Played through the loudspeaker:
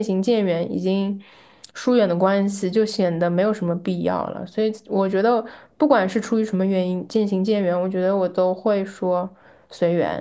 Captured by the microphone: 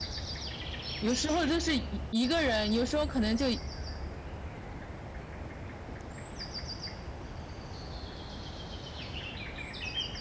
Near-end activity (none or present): present